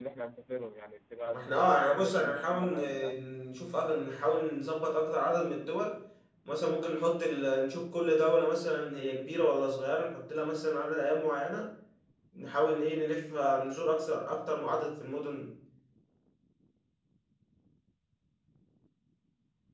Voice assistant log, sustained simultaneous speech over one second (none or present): present